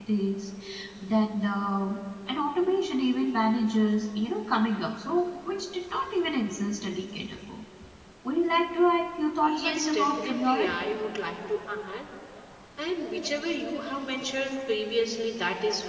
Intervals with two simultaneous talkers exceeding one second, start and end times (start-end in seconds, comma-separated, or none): 9.4-10.8